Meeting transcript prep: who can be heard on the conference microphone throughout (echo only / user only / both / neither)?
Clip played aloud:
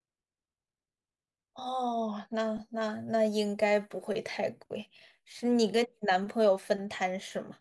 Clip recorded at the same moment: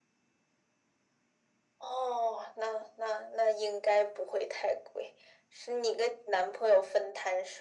echo only